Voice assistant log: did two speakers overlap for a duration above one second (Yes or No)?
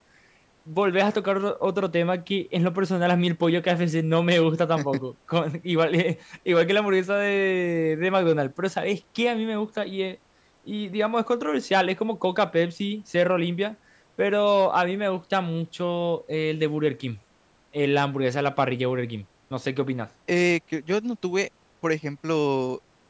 No